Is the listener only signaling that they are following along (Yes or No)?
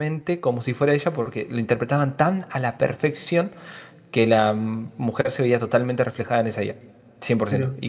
Yes